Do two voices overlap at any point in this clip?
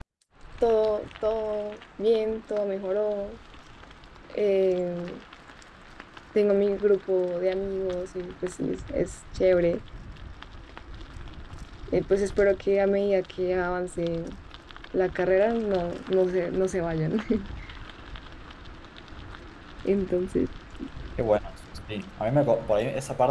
No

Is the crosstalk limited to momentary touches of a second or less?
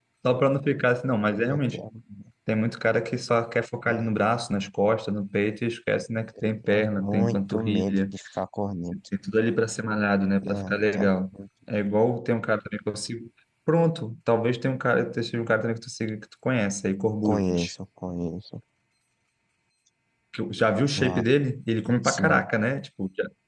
No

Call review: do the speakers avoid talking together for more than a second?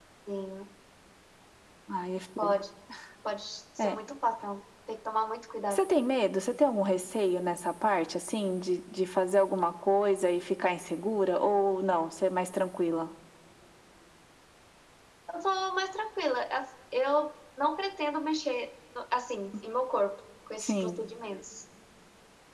Yes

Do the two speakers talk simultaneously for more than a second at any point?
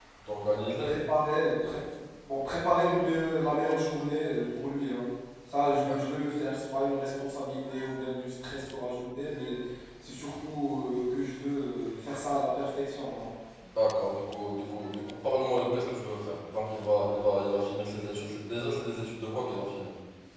No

